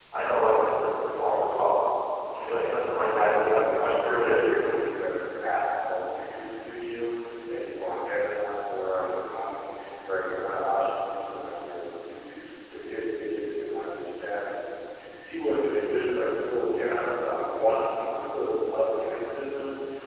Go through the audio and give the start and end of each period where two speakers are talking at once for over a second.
3.2-4.9

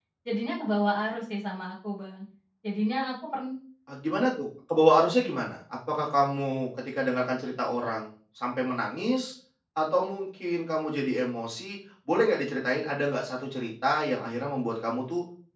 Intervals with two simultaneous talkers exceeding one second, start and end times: none

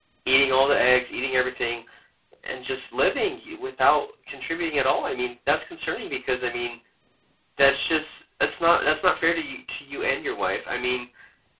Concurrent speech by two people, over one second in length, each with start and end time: none

